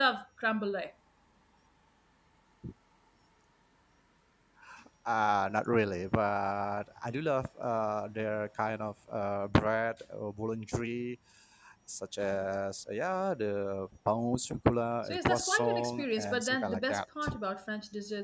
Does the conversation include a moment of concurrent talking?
Yes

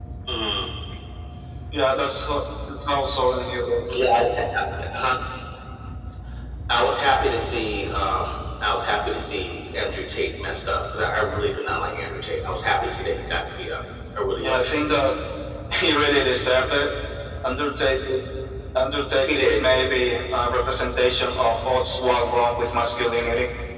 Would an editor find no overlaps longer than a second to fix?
Yes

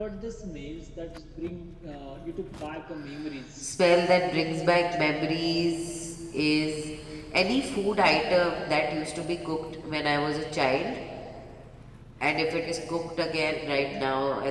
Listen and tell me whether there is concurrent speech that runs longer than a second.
No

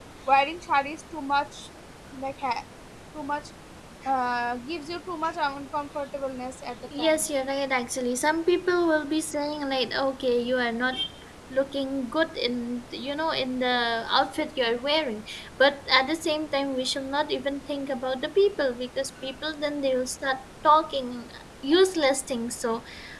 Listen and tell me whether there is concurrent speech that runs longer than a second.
No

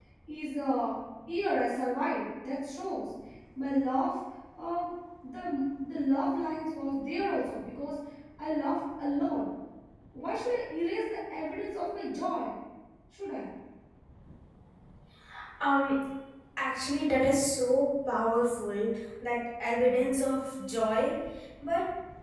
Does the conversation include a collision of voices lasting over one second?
No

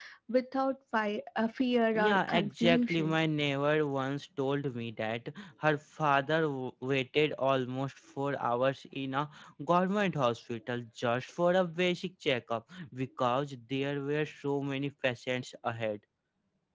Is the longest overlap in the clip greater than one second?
Yes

